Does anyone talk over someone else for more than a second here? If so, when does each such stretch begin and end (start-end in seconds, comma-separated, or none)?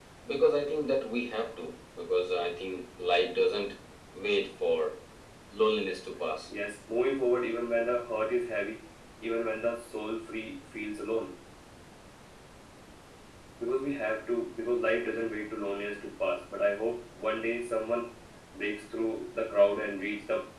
none